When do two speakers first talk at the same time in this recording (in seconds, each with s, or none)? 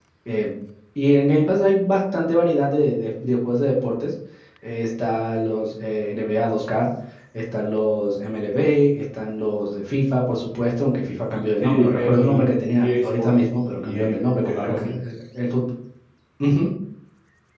11.6 s